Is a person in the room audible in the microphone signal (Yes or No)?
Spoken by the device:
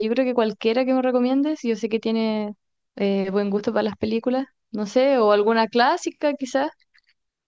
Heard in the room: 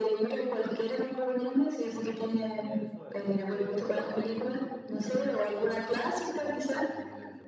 Yes